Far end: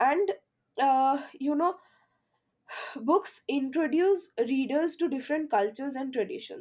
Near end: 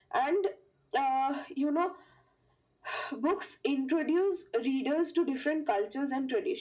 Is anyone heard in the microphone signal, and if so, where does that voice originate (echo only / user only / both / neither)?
echo only